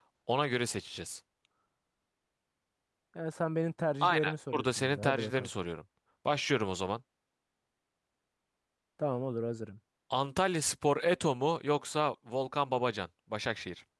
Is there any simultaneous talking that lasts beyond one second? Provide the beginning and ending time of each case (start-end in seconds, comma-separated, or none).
4.0-5.5